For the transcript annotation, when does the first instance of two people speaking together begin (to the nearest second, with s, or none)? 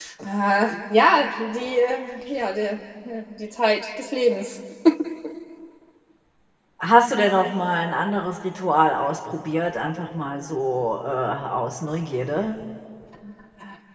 none